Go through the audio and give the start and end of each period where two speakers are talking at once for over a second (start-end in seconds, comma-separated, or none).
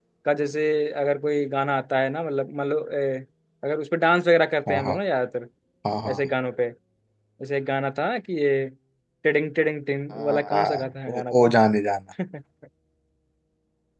10.1-11.6